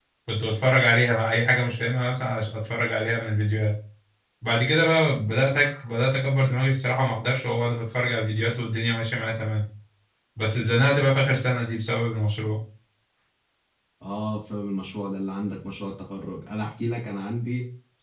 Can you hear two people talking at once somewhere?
No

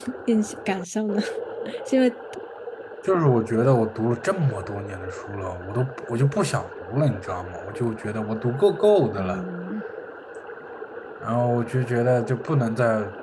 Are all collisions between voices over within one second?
Yes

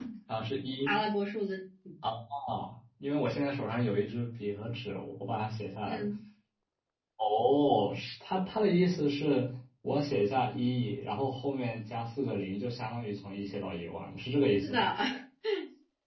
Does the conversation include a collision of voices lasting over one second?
No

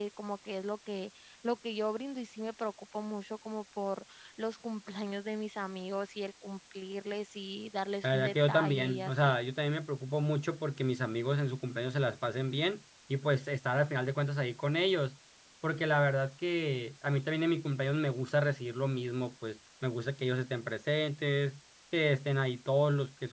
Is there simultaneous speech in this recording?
Yes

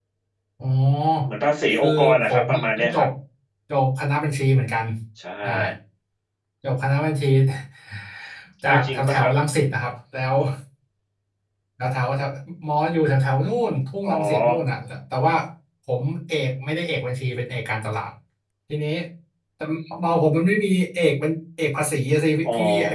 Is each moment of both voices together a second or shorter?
No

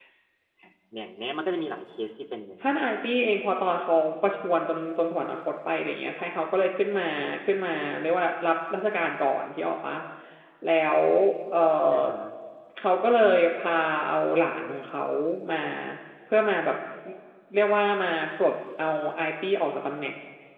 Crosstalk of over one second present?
No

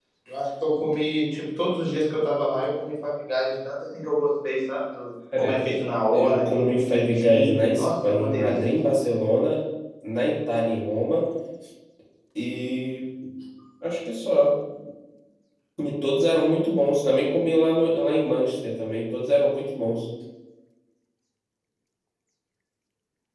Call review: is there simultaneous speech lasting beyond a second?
Yes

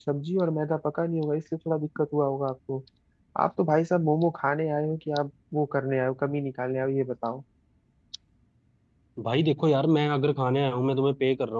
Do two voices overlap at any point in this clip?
No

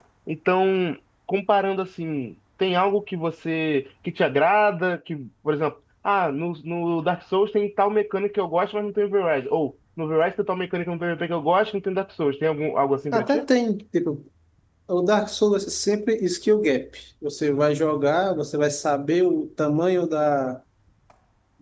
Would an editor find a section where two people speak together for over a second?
No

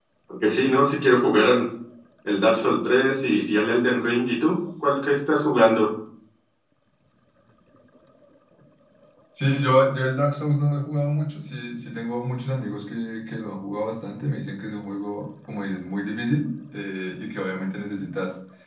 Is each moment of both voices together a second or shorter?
Yes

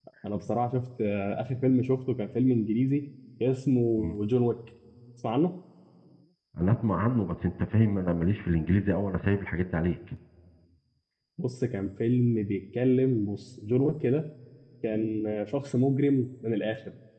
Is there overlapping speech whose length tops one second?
No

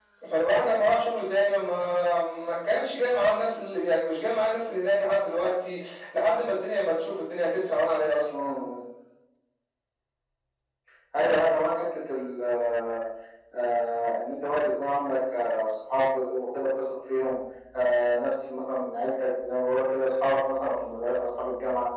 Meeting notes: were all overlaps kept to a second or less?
Yes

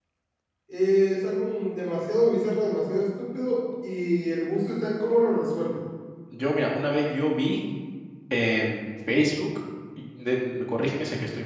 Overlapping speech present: No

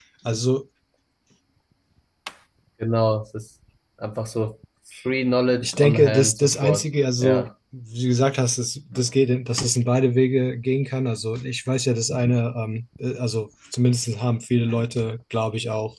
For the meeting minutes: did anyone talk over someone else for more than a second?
Yes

